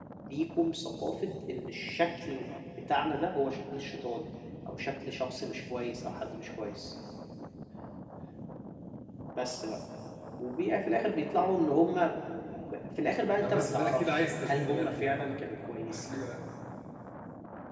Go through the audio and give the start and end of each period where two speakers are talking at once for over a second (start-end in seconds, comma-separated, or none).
13.4-16.3